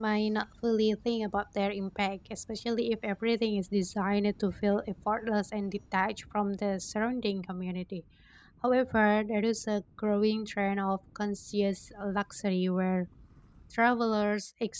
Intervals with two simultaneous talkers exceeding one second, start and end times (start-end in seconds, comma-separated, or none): none